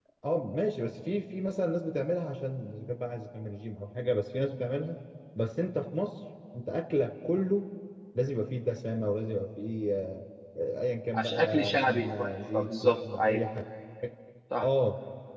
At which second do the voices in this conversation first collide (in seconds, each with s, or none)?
11.1 s